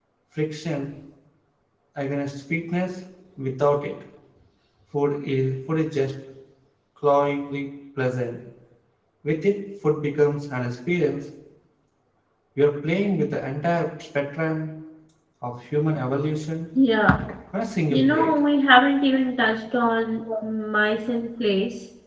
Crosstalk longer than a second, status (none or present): none